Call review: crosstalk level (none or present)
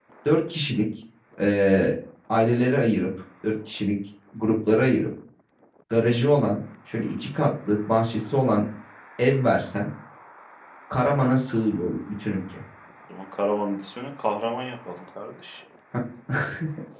none